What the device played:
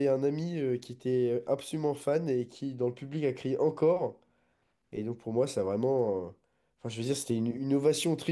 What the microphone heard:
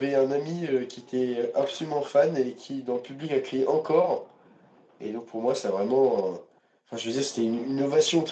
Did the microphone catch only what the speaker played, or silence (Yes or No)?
Yes